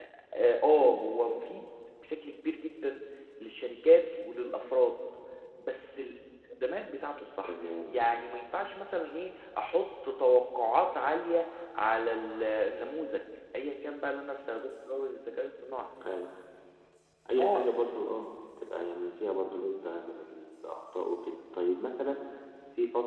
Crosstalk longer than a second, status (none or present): none